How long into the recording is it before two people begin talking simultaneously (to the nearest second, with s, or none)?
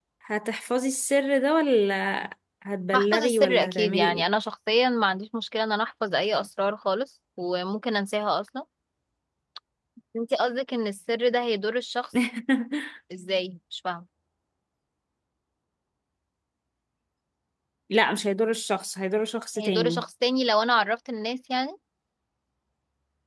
3 s